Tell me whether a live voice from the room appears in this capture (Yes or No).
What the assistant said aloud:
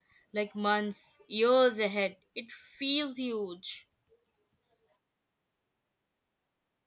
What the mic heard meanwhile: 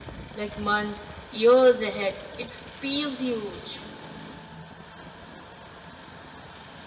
No